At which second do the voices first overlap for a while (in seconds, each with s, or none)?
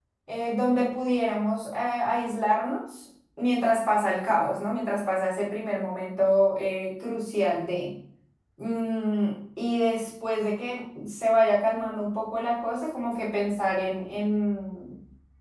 none